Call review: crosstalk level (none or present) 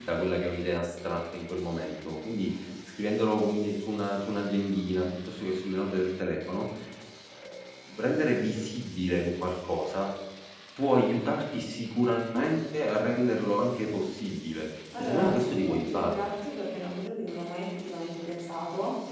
present